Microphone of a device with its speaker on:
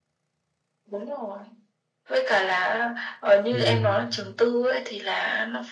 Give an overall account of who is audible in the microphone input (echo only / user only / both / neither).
both